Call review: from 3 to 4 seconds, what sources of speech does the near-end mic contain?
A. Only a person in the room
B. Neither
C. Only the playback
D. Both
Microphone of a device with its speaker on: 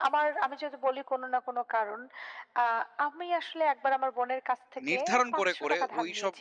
C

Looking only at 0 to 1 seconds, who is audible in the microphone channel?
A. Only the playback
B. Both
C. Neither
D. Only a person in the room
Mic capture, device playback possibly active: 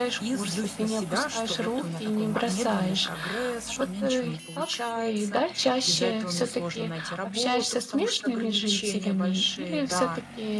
A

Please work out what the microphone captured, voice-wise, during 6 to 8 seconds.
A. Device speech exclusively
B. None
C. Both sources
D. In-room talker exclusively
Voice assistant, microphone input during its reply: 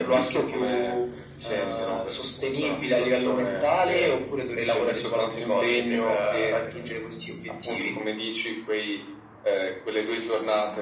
A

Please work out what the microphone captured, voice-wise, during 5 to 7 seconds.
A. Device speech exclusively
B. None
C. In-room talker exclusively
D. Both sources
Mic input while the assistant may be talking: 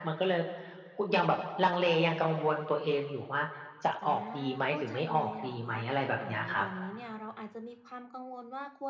D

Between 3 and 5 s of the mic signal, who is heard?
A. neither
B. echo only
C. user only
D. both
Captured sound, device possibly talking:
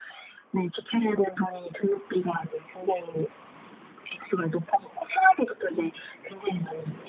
B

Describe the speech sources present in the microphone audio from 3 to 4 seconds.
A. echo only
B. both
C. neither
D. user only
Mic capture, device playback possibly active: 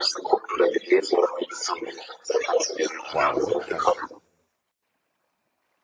B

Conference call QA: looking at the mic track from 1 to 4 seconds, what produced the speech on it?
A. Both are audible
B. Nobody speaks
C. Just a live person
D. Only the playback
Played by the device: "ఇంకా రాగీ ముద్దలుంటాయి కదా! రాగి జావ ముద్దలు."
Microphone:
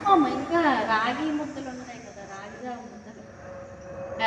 D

